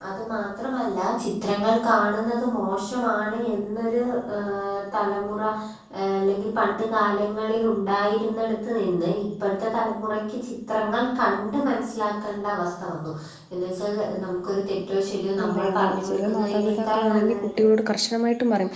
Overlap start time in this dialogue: 15.4 s

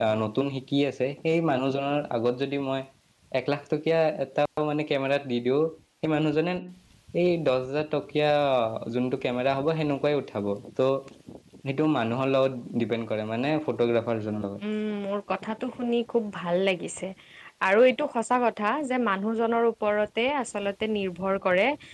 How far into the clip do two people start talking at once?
none

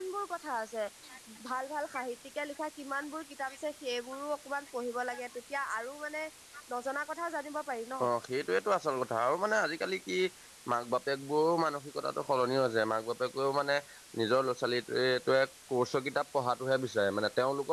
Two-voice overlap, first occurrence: none

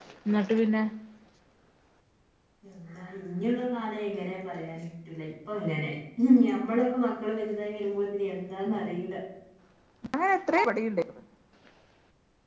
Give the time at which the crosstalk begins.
none

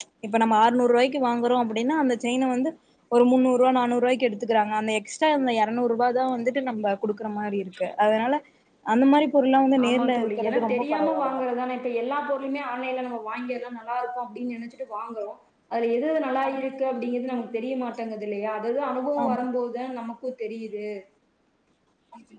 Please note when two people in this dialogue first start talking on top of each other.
9.8 s

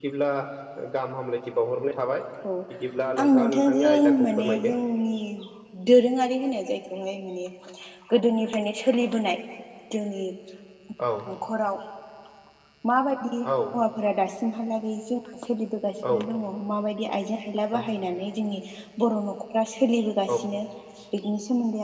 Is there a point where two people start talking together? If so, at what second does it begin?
3.2 s

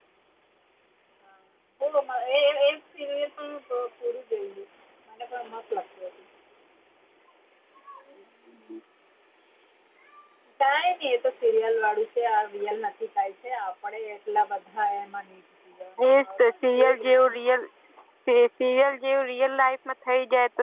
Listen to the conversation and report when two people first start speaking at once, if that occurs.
16.0 s

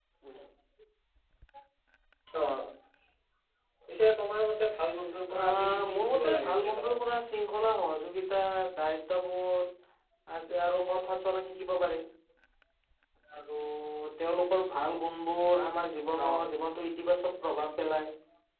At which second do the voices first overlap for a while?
5.4 s

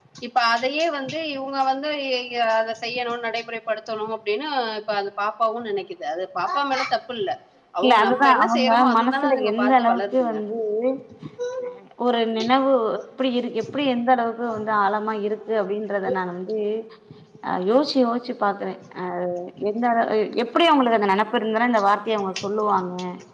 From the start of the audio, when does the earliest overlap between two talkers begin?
7.8 s

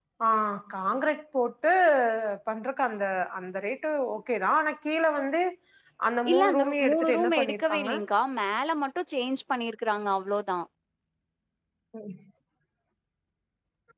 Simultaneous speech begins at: 6.3 s

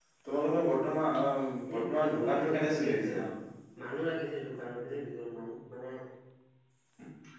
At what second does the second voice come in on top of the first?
1.7 s

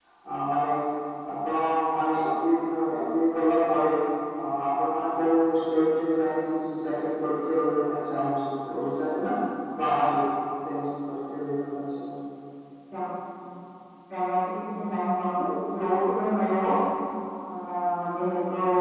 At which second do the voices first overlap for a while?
none

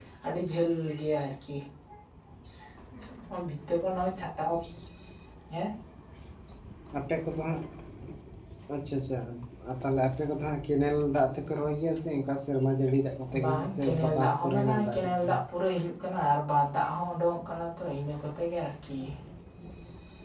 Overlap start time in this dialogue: 13.3 s

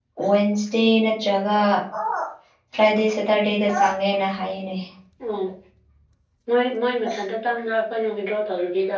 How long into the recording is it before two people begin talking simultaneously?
none

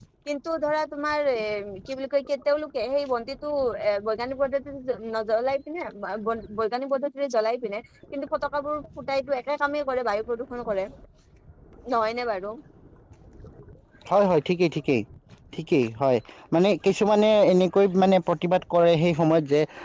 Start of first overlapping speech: none

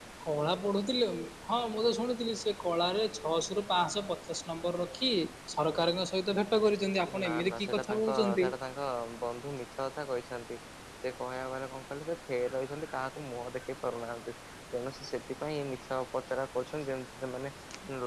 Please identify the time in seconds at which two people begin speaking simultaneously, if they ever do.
7.1 s

